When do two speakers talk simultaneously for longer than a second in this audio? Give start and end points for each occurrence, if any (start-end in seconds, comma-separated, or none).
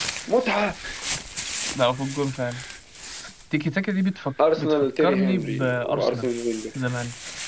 4.6-6.3